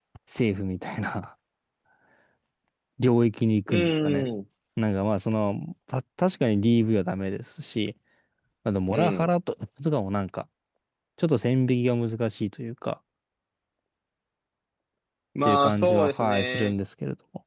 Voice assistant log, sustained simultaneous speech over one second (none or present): present